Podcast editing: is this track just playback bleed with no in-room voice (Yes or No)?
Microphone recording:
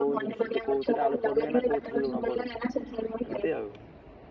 No